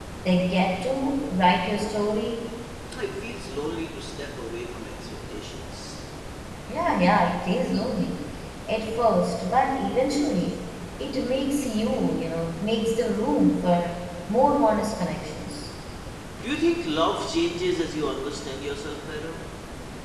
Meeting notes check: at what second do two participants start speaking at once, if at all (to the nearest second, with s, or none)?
none